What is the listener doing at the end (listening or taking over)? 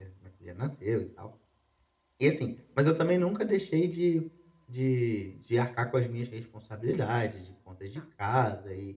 listening